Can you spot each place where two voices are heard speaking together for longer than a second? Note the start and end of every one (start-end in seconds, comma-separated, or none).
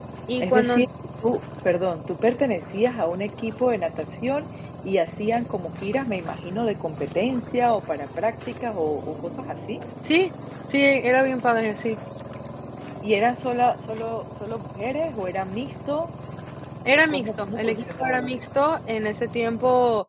17.1-18.3